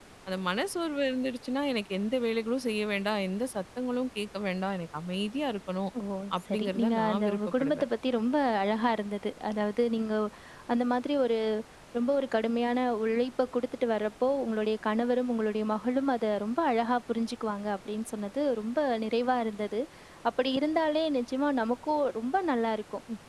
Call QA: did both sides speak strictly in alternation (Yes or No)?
No